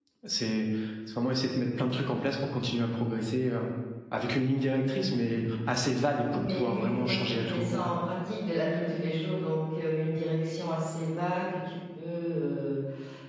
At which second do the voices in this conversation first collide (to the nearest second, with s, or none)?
6 s